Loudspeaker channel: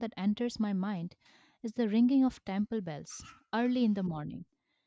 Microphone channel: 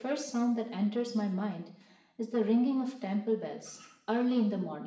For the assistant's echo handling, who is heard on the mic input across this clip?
echo only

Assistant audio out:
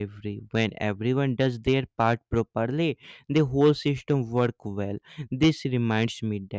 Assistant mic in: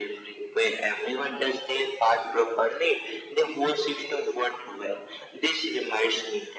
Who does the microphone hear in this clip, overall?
echo only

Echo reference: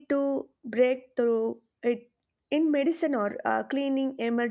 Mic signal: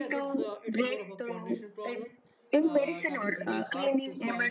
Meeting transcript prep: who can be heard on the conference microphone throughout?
both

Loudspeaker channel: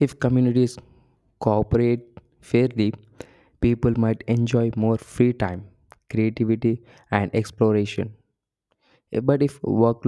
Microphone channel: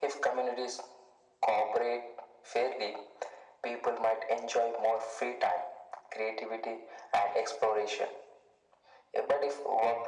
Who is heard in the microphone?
echo only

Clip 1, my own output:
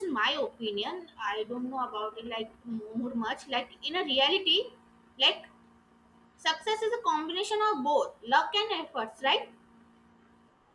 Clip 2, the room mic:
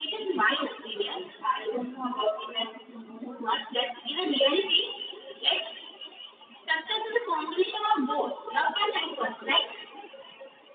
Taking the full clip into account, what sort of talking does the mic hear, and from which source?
echo only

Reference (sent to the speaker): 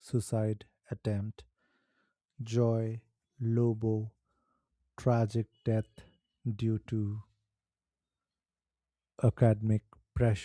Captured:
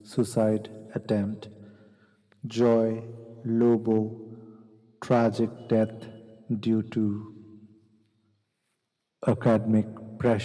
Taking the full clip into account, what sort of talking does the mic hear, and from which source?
echo only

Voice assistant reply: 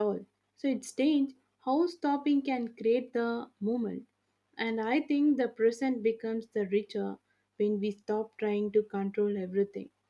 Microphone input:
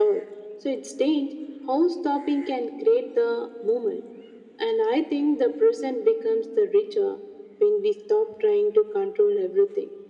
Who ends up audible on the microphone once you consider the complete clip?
echo only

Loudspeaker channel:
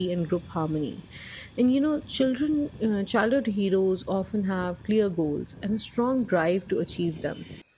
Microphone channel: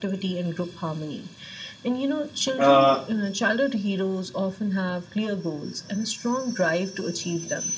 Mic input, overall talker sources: both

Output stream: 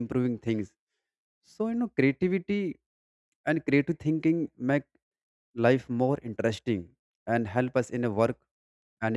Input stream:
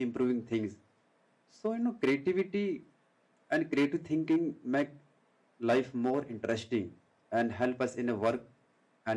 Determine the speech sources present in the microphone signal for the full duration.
echo only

